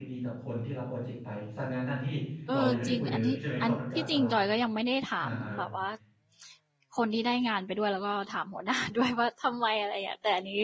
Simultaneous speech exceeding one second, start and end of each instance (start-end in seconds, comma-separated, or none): 2.5-4.4